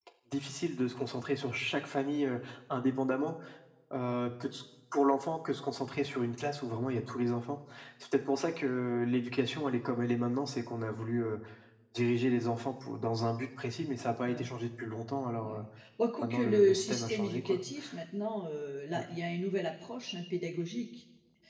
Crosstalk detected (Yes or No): Yes